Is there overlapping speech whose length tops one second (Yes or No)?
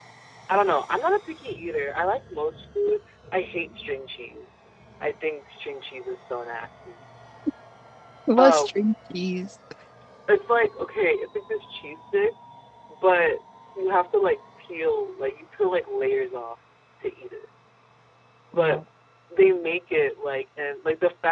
No